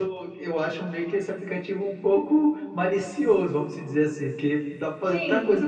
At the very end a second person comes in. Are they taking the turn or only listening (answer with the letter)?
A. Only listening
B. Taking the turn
B